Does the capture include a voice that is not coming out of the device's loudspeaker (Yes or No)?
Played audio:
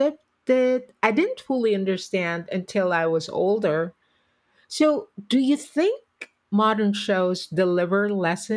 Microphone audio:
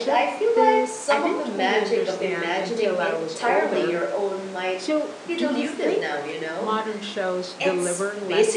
Yes